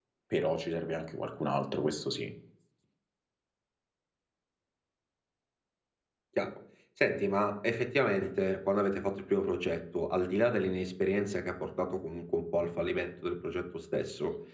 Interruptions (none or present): none